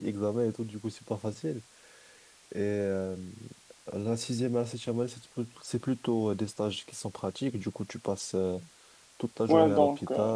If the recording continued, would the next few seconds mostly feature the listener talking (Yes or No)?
Yes